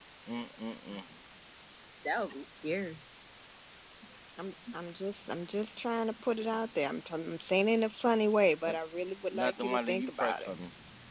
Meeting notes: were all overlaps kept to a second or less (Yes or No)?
No